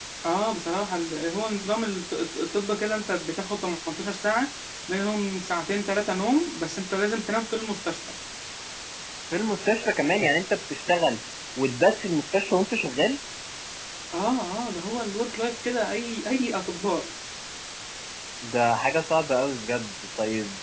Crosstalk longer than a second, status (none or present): none